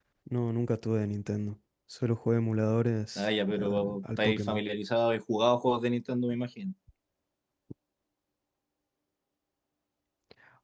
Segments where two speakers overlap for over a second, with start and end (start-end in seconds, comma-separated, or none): 3.1-4.6